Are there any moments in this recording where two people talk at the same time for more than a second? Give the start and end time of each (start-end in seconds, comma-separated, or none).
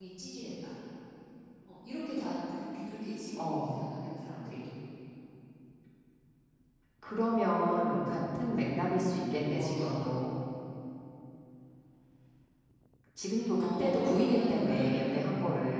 13.6-14.9